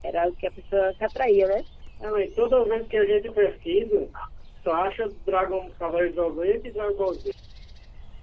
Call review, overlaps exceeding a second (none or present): none